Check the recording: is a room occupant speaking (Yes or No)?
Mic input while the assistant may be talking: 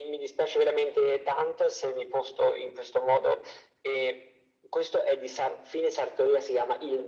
No